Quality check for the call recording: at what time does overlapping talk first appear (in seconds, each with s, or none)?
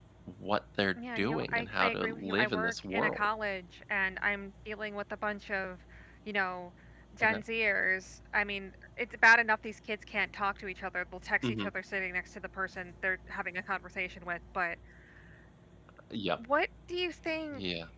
1.2 s